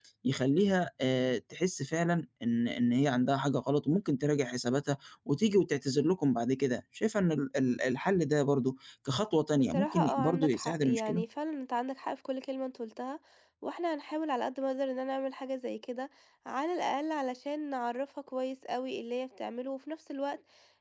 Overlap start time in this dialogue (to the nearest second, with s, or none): 10 s